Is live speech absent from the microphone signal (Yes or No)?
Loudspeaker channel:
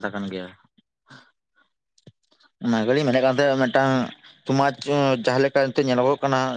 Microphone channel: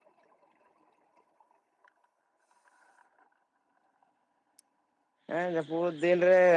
No